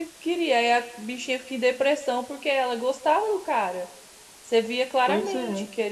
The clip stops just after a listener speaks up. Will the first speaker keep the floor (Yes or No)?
Yes